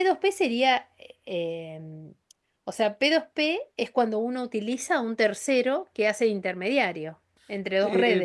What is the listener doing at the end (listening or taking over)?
taking over